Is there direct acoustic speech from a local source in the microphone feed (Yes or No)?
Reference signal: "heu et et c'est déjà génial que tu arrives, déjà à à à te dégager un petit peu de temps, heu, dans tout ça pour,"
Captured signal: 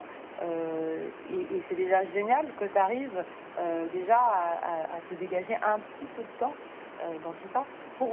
No